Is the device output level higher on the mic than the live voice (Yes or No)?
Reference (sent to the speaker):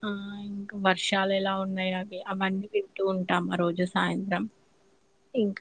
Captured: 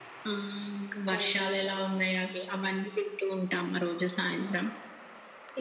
Yes